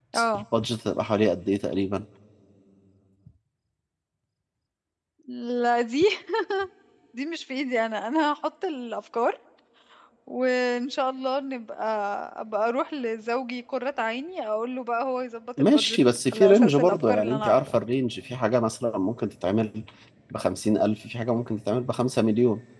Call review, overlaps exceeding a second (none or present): present